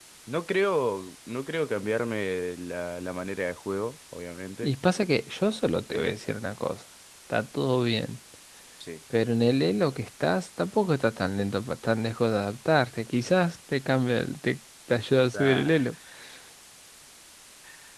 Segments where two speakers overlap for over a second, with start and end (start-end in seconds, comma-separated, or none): none